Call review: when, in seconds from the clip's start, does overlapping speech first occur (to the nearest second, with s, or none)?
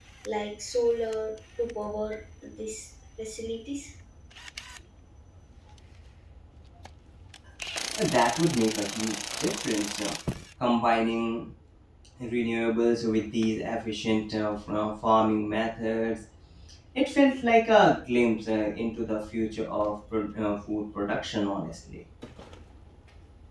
none